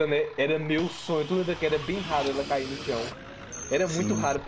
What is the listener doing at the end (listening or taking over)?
listening